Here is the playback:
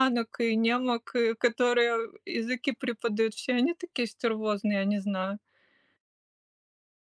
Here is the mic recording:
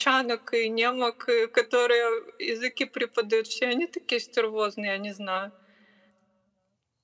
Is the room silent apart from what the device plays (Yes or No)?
Yes